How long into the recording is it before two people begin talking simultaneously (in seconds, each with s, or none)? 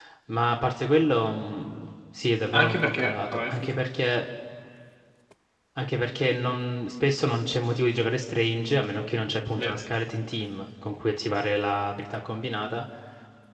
2.5 s